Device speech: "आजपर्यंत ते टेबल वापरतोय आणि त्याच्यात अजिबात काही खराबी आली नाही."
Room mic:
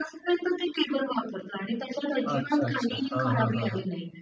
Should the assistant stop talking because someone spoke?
Yes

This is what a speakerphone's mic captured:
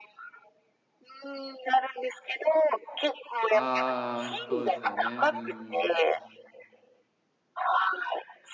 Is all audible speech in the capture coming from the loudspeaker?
No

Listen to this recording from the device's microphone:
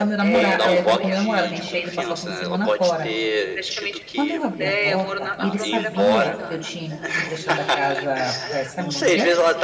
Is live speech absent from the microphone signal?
No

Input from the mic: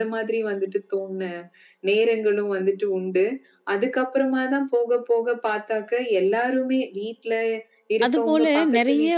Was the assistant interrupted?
Yes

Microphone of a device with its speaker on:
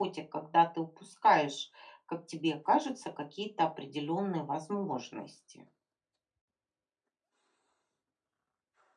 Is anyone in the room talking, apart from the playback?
Yes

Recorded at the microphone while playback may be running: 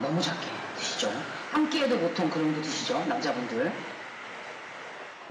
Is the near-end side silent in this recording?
Yes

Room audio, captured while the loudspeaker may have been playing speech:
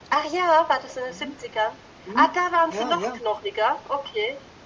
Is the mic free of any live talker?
No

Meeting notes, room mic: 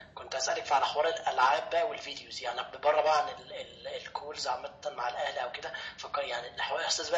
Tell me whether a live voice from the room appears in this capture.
No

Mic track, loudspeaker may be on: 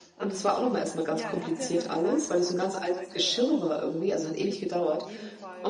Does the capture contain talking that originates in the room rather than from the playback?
Yes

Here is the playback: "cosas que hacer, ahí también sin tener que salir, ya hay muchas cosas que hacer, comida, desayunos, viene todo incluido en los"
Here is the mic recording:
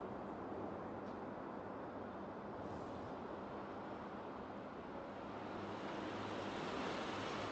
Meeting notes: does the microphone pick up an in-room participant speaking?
No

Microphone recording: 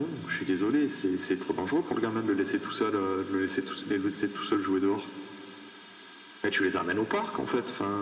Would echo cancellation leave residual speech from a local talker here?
No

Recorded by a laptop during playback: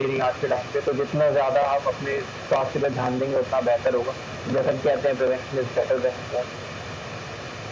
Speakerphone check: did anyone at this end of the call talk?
No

